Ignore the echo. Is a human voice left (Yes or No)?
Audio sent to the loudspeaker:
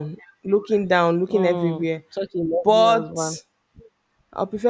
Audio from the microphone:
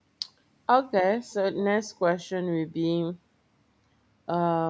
Yes